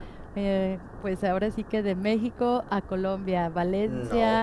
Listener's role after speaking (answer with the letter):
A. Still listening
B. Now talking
A